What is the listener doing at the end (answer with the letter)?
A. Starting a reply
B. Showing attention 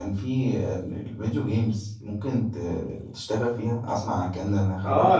A